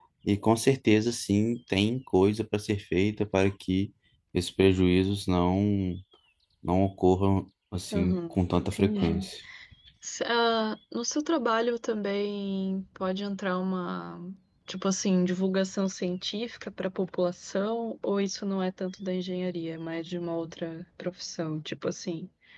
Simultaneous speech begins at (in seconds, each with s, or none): 7.9 s